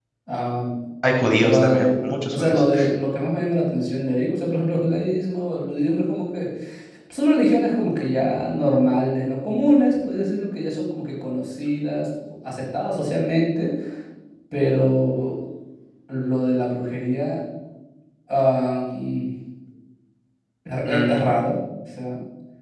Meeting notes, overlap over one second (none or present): present